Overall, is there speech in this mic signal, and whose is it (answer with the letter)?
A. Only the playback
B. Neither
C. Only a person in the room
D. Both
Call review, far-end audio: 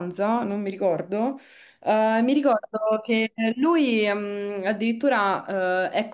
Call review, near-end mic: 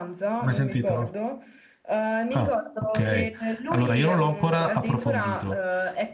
D